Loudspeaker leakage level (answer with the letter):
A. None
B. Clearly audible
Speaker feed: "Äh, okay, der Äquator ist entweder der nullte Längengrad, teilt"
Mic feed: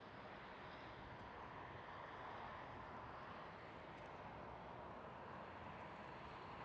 A